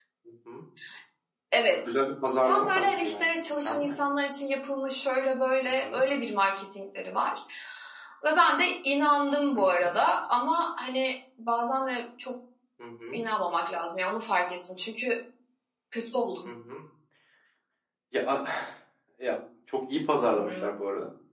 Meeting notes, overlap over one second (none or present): present